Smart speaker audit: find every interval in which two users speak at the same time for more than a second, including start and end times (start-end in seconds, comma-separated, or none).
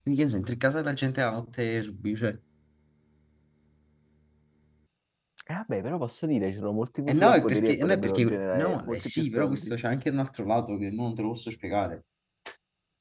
7.1-9.8